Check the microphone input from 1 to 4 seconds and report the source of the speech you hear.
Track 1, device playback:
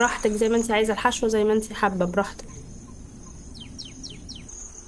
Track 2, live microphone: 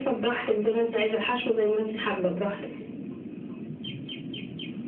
echo only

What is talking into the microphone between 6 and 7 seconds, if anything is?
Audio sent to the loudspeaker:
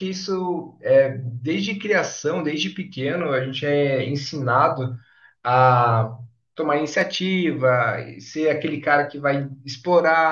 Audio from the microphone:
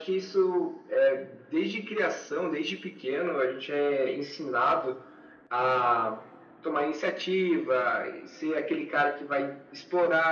echo only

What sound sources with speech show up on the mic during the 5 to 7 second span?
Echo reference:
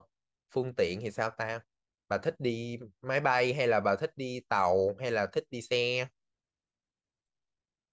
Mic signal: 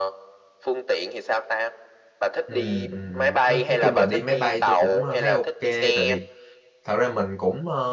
both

